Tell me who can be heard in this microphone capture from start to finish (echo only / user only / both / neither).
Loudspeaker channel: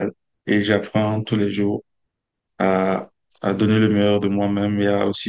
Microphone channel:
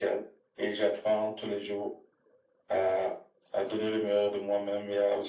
echo only